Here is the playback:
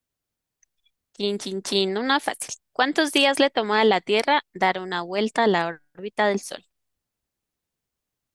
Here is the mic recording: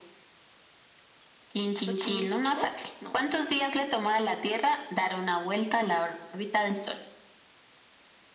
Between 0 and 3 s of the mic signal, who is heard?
both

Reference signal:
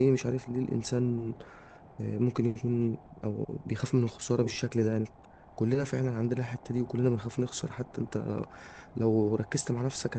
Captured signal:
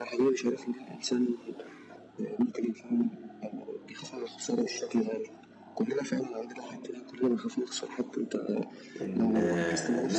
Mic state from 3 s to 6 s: echo only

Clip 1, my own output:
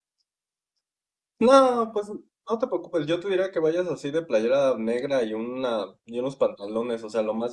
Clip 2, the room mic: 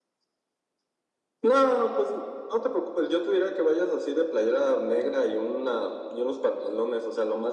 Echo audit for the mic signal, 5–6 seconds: echo only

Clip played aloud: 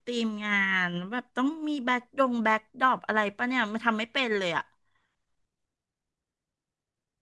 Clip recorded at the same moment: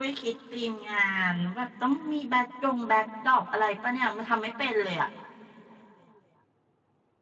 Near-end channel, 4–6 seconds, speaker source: echo only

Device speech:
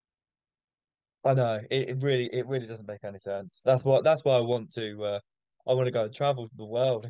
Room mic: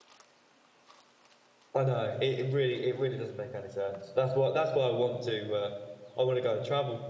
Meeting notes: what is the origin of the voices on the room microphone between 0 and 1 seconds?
neither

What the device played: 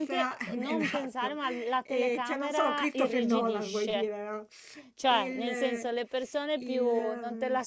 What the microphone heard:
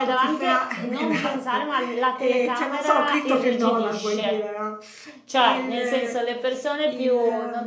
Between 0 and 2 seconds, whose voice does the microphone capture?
echo only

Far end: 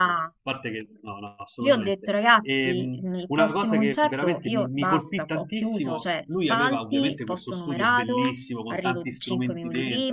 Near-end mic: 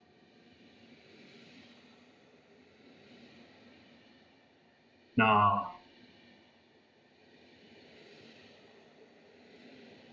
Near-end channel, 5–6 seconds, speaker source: user only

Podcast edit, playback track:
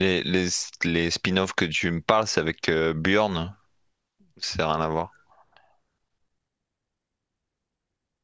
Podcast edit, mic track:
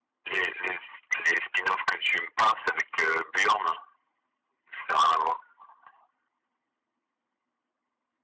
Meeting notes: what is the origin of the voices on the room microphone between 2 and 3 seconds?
echo only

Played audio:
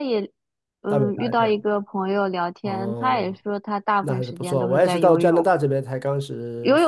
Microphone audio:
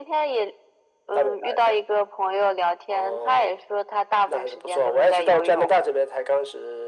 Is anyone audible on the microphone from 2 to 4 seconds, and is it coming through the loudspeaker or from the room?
echo only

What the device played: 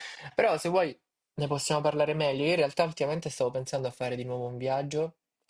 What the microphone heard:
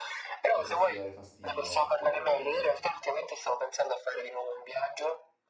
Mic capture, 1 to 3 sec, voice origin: both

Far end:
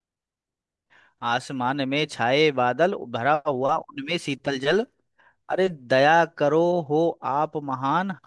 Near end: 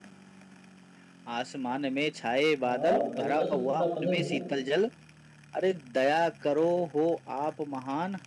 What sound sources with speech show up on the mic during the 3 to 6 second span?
both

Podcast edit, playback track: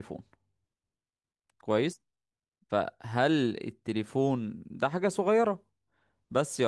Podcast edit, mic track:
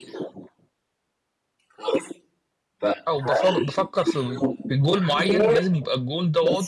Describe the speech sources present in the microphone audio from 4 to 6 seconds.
both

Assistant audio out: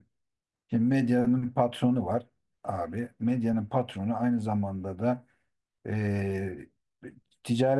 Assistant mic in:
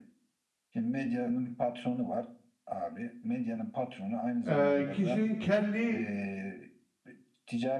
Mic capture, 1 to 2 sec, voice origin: echo only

